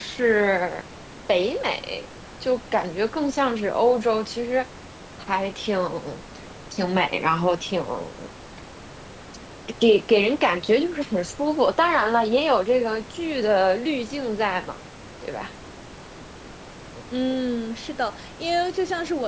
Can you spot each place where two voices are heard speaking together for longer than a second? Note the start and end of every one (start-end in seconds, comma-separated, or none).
none